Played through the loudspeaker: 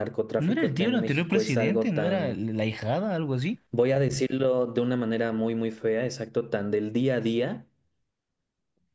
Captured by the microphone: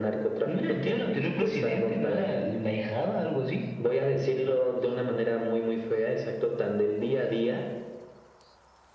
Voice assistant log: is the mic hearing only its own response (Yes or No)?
Yes